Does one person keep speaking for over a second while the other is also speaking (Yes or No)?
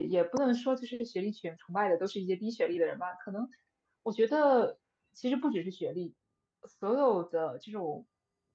No